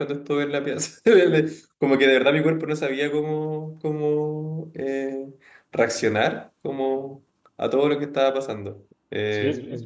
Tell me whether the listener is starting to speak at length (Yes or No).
Yes